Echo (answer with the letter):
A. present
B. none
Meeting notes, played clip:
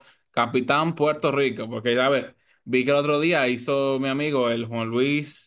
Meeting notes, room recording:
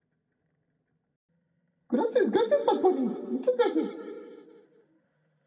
B